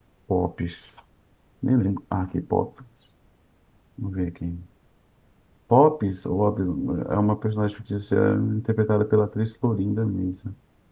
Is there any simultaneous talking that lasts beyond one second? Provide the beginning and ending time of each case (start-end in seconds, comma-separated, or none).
none